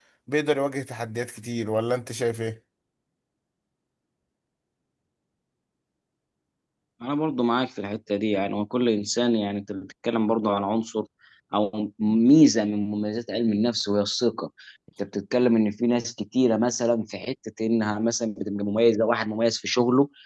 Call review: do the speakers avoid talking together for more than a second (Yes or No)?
Yes